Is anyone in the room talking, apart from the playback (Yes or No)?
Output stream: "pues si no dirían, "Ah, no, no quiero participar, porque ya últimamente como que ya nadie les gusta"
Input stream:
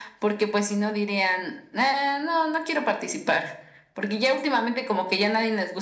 No